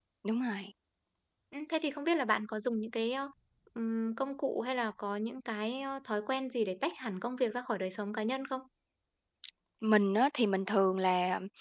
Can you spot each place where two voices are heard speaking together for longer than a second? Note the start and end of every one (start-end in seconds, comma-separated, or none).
none